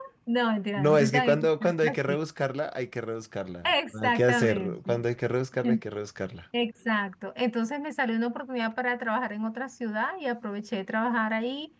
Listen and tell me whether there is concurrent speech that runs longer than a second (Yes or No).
Yes